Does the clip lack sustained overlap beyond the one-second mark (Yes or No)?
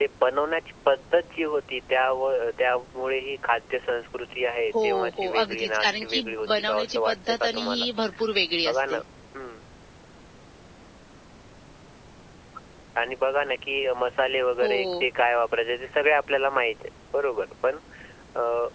No